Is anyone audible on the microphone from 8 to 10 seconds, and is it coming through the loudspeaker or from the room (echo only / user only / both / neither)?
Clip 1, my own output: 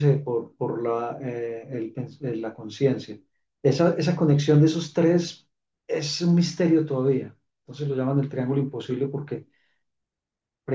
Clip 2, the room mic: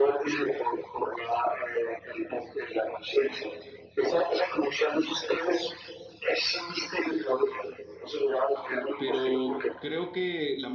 both